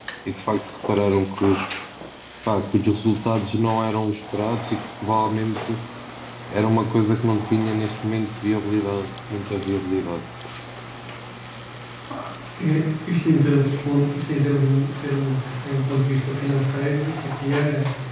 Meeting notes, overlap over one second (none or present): none